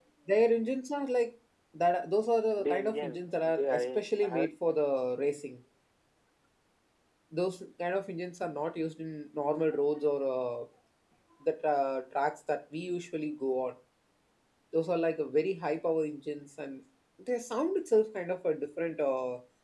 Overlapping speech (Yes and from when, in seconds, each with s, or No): Yes, from 2.6 s